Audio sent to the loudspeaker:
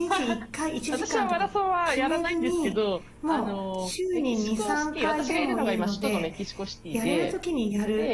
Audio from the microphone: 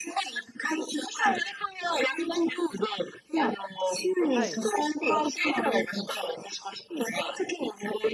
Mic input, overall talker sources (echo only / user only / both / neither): both